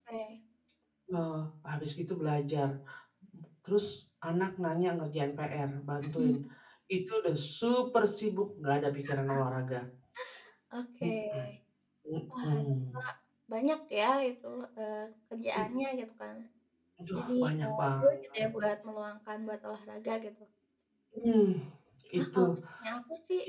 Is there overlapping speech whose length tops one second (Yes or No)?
Yes